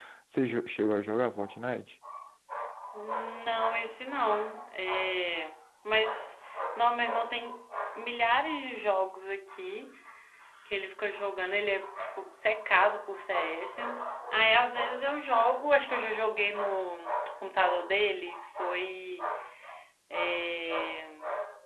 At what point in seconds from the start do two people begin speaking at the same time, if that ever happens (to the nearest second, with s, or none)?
none